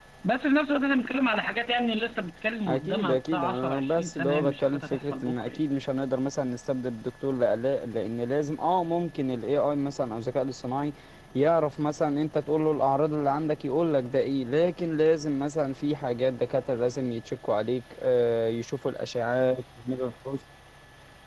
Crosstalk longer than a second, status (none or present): present